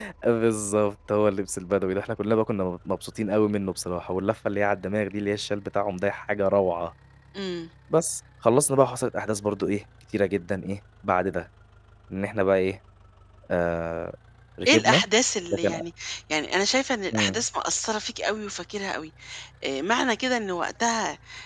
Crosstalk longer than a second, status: none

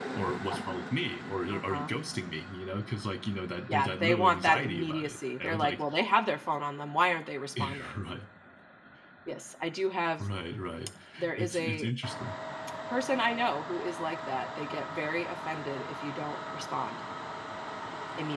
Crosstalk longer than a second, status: present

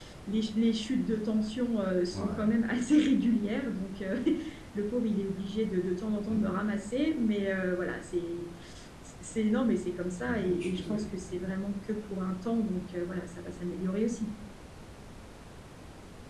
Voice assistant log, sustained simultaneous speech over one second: present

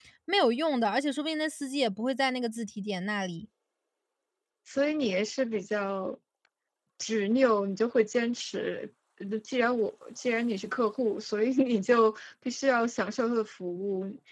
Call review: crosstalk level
none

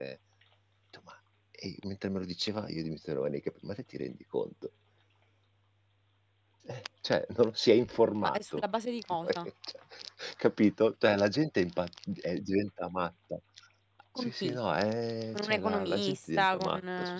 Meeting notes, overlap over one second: present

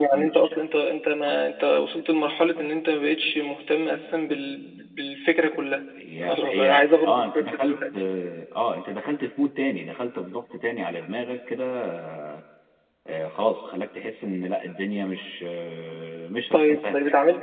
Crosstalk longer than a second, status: present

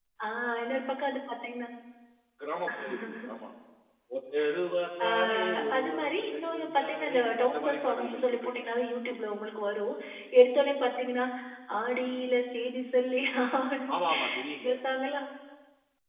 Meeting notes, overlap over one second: present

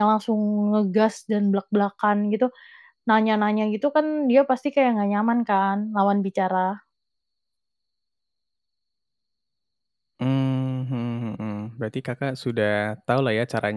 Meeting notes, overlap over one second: none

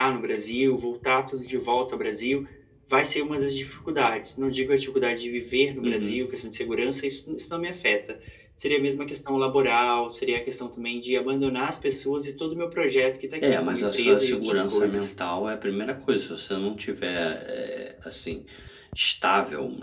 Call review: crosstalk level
present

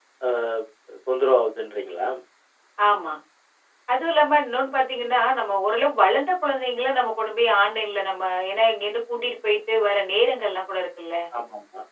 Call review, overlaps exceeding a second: none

